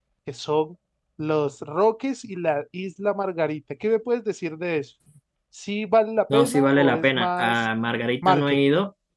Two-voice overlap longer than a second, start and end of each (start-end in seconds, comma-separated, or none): 6.3-7.6